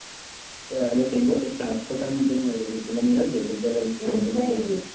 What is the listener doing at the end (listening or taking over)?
taking over